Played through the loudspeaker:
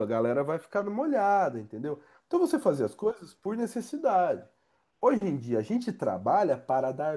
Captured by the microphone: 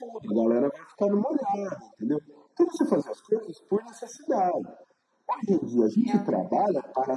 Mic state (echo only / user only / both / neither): both